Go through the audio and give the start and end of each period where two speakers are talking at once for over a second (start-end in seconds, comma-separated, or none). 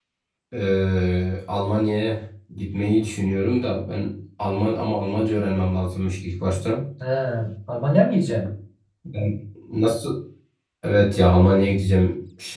none